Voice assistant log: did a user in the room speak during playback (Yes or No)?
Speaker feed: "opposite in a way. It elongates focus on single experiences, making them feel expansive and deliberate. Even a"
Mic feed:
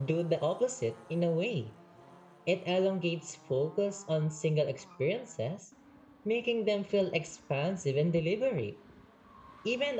No